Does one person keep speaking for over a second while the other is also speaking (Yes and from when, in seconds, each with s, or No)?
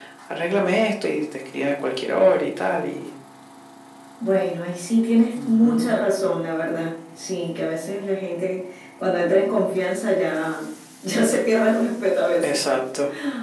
No